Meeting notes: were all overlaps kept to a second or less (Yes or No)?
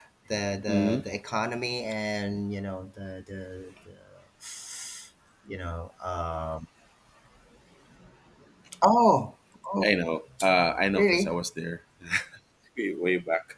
Yes